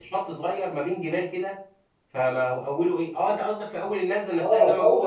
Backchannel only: No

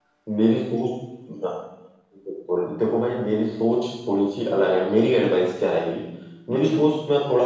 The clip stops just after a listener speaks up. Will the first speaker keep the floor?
Yes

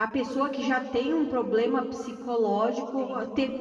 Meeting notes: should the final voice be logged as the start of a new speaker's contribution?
Yes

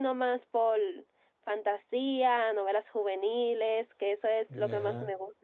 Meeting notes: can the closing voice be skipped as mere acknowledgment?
Yes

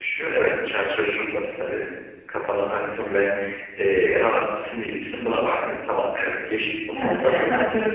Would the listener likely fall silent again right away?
No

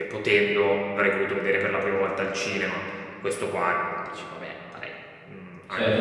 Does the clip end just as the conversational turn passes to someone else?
Yes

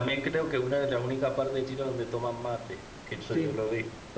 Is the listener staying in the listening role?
No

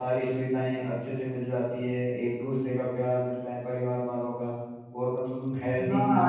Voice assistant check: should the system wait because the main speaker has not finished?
No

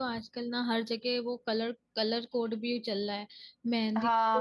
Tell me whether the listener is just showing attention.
No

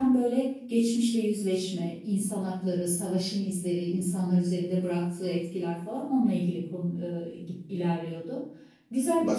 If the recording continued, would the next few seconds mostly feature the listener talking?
Yes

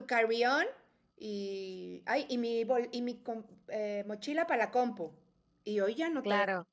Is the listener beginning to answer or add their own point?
Yes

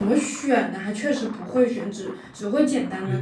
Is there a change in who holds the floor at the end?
Yes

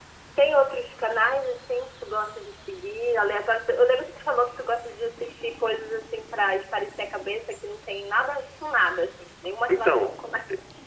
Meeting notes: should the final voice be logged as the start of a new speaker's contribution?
Yes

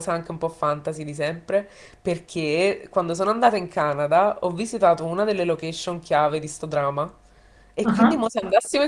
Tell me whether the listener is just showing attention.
Yes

